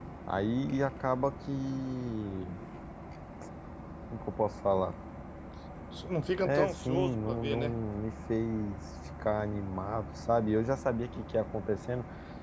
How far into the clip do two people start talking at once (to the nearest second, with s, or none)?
6 s